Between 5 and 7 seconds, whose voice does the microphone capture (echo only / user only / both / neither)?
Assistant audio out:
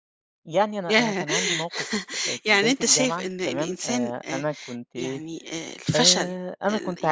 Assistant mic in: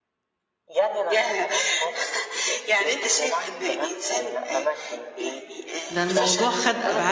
both